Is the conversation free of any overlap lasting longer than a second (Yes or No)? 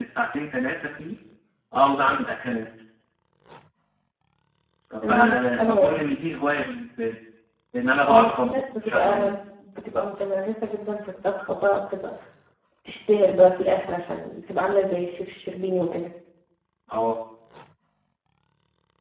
No